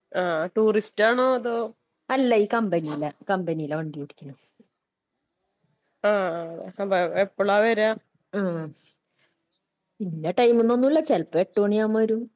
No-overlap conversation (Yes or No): Yes